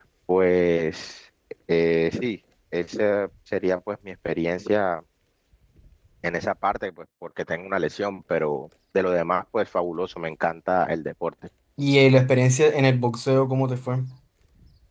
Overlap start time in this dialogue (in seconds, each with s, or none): none